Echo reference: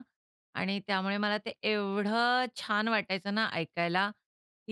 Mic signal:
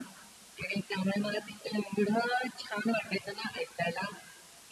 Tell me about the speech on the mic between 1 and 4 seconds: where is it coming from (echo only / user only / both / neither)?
echo only